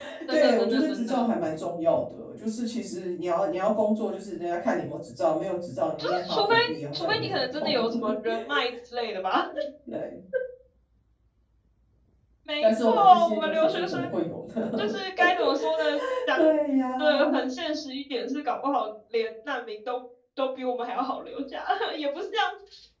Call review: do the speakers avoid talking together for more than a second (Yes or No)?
No